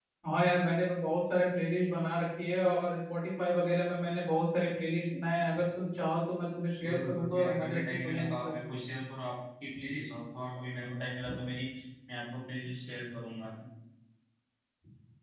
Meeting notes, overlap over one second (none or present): present